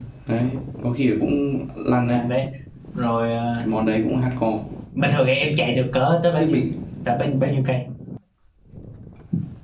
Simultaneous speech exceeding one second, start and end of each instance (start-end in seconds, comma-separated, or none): none